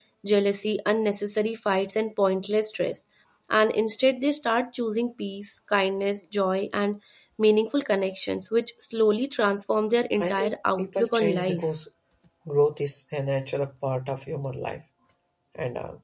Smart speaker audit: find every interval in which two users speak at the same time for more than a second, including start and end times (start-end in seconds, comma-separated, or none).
10.2-11.6